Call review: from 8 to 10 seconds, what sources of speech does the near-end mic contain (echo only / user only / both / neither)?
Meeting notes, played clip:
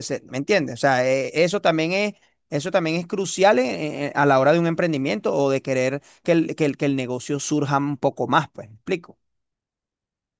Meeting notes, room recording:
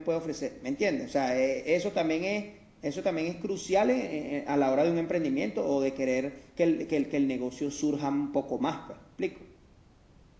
echo only